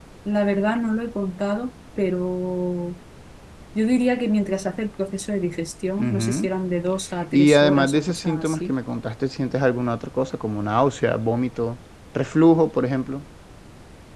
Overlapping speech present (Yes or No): Yes